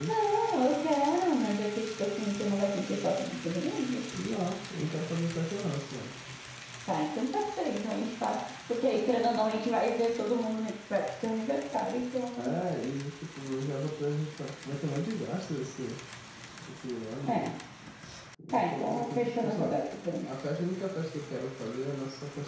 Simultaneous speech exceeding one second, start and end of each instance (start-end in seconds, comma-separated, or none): 18.5-19.8